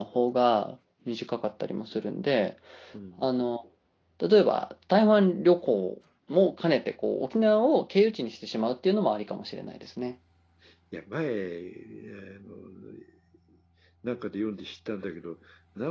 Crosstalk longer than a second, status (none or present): none